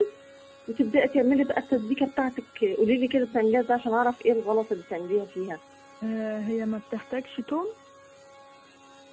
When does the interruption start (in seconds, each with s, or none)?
none